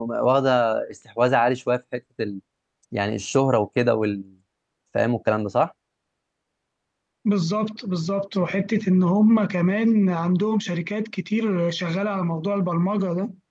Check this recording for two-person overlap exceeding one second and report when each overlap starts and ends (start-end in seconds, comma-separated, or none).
none